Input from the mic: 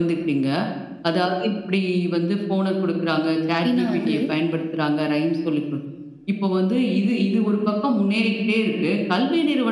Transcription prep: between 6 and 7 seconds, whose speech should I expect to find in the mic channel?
echo only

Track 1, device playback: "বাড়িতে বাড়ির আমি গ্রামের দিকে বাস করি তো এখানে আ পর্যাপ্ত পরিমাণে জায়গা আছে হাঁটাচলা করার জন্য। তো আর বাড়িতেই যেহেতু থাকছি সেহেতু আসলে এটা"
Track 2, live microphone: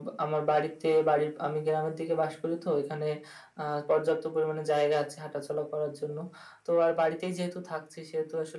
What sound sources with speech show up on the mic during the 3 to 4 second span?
echo only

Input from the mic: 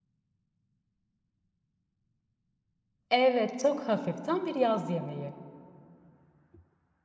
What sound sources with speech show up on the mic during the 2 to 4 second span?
user only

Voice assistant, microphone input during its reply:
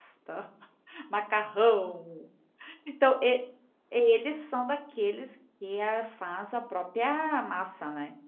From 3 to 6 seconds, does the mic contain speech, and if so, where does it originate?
user only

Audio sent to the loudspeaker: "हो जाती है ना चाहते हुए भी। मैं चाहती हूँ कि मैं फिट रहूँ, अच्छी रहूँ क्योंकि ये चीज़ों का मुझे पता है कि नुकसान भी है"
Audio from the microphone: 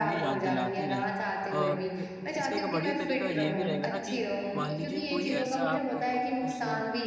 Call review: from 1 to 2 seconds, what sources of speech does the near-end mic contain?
both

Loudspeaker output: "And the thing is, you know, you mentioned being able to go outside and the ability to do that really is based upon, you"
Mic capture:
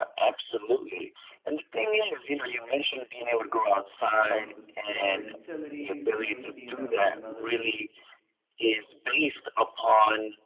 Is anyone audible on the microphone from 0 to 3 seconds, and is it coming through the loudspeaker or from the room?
echo only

